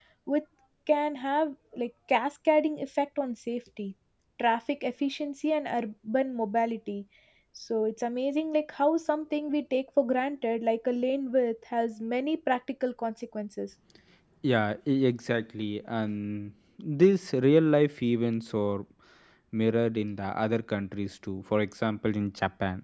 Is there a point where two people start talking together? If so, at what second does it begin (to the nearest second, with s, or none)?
none